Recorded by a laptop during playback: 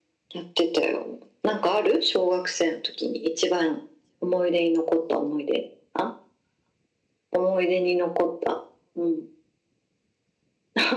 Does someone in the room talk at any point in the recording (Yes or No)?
No